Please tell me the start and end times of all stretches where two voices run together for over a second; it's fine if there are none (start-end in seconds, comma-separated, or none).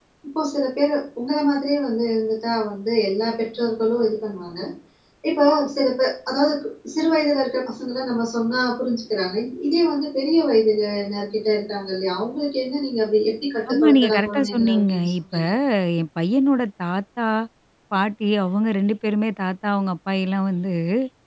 13.7-15.3